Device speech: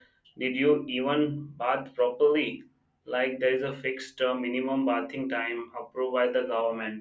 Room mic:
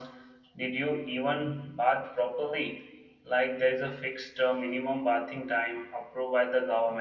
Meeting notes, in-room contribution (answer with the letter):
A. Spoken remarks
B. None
B